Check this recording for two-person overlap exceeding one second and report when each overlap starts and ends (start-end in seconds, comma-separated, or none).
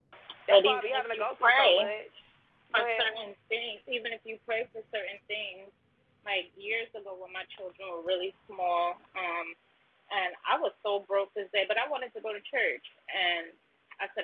0.5-1.9